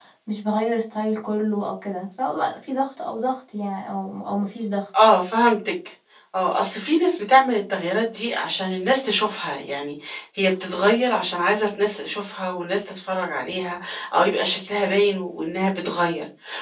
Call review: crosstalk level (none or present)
none